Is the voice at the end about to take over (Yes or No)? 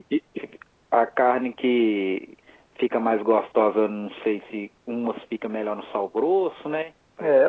Yes